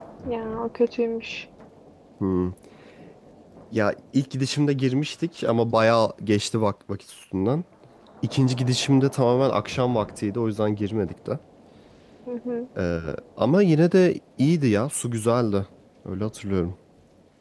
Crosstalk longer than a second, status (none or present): none